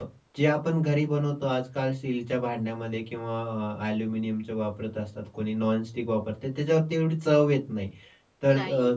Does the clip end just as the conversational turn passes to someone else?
No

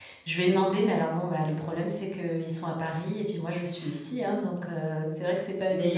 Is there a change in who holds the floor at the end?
Yes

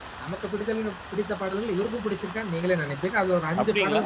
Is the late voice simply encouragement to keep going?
No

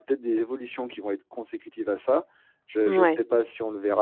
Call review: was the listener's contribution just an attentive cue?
Yes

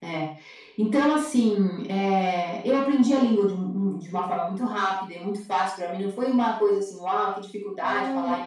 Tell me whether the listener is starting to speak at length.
Yes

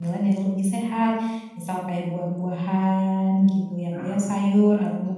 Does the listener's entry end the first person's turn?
No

